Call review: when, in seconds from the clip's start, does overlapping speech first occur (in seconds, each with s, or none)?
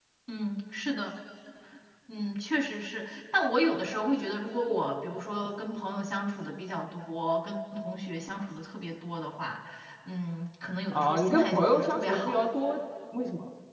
10.9 s